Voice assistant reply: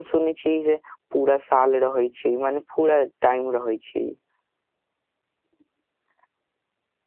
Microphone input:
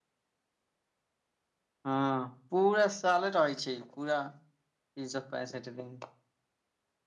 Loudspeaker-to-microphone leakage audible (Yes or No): No